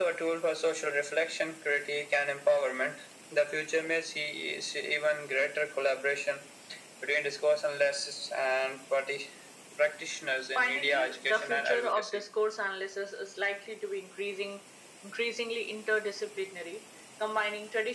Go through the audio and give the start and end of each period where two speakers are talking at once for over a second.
10.6-12.2

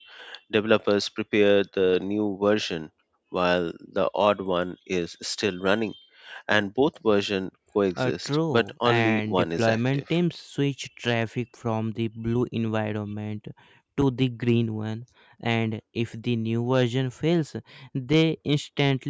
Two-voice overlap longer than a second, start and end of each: 8.0-10.0

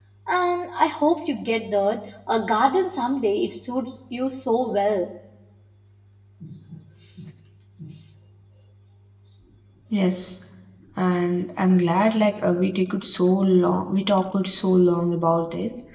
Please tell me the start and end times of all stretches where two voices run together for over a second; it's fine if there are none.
none

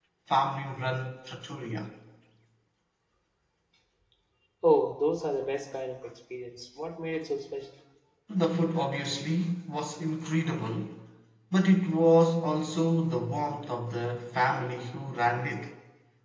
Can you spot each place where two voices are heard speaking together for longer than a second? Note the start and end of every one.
none

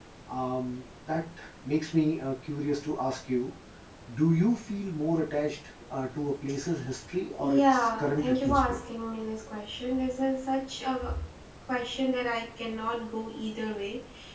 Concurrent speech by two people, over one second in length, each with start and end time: 7.4-8.8

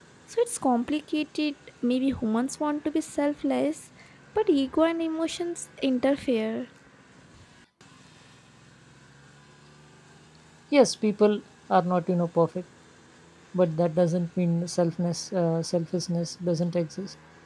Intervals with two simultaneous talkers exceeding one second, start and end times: none

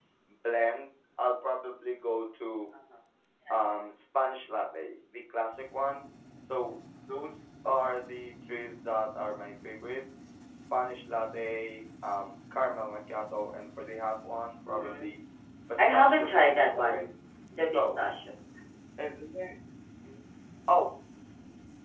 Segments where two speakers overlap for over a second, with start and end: 15.8-17.1

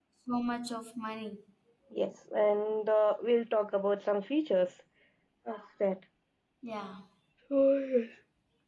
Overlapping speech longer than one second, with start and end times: none

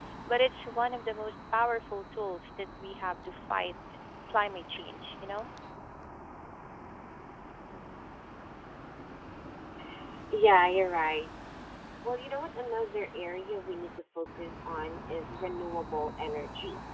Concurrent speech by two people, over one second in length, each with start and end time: none

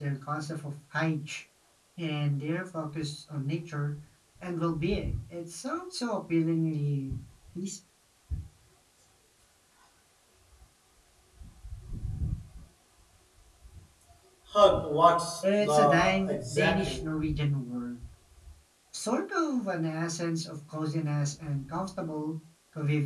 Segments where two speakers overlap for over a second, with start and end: 15.6-17.0

